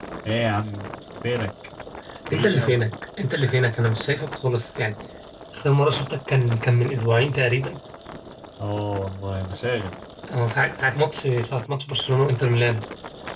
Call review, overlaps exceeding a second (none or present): none